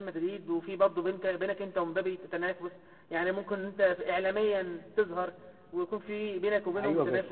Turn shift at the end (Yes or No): Yes